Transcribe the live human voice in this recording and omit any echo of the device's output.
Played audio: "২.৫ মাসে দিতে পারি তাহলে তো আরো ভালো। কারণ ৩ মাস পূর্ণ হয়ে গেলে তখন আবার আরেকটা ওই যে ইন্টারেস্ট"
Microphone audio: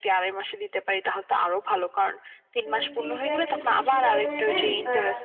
স্মৃতিটা একটু যদি স্বীকার করে নেন বা

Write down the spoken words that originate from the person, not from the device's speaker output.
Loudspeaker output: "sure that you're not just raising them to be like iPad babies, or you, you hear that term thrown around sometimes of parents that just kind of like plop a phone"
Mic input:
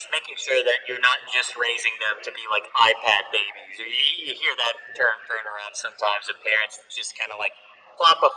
none

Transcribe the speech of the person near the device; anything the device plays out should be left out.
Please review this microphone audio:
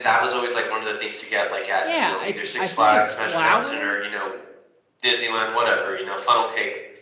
Yeah, it's I think it's flour,

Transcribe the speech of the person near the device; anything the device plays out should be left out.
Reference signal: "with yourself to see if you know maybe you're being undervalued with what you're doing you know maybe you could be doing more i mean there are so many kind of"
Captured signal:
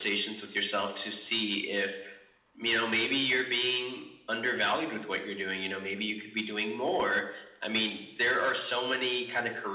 none

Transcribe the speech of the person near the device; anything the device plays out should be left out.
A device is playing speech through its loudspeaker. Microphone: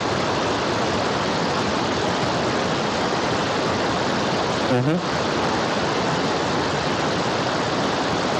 Hı hı.

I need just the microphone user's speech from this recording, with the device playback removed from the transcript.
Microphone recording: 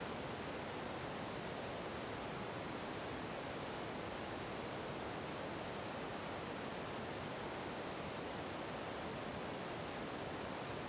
none

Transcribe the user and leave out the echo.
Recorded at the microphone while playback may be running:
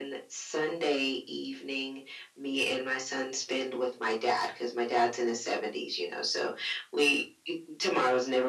none

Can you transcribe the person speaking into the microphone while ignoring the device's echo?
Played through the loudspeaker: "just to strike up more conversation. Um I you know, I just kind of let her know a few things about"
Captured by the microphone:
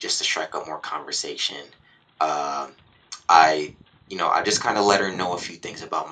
none

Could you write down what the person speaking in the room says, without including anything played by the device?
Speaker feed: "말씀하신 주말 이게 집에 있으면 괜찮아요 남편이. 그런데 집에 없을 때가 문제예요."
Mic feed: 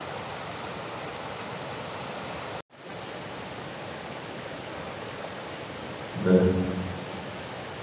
네.

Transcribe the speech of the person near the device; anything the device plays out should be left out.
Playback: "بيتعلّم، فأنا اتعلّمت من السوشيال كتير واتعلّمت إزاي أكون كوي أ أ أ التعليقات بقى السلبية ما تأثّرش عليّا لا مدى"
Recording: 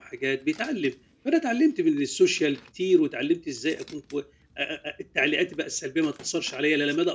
none

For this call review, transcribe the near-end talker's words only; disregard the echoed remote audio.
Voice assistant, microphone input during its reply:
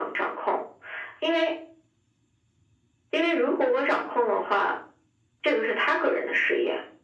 none

